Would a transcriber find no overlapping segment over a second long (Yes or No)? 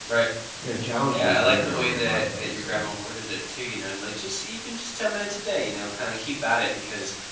No